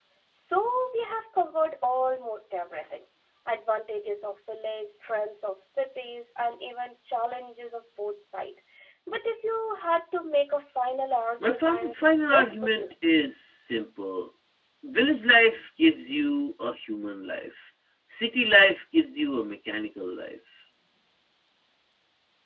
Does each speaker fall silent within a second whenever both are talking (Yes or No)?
No